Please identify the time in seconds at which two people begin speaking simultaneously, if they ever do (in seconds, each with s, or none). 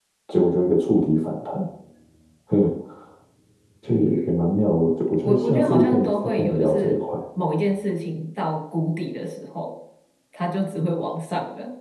5.1 s